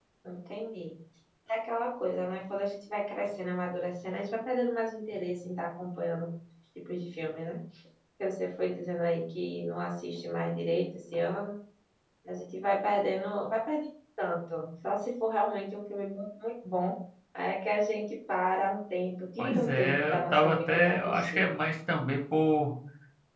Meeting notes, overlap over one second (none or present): present